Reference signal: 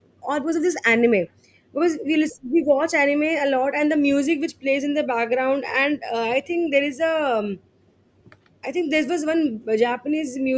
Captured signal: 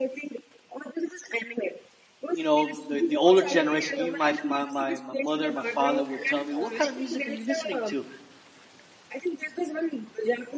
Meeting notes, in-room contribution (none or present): present